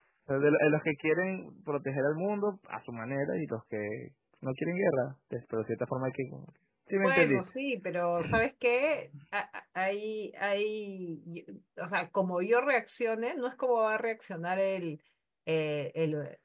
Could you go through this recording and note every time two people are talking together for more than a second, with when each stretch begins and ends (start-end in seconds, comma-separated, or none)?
none